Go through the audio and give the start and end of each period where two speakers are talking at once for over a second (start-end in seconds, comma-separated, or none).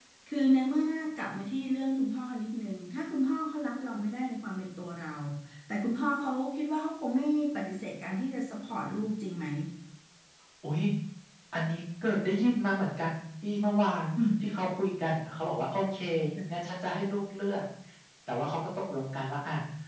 none